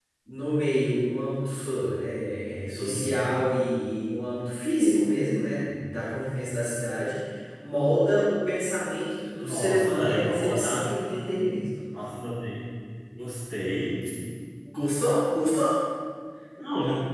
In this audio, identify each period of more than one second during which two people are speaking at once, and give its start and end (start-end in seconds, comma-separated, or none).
9.4-10.8